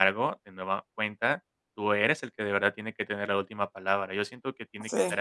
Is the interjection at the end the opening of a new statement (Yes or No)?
No